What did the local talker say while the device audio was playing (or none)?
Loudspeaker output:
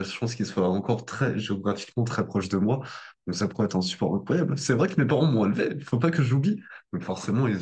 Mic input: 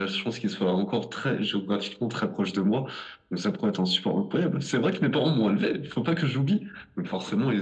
none